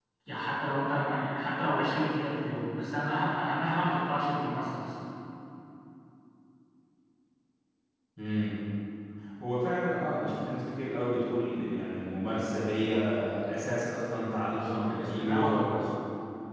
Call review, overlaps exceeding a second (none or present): present